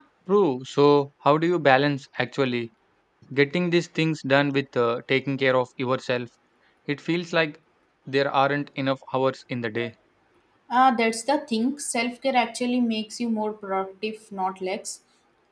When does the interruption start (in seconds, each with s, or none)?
none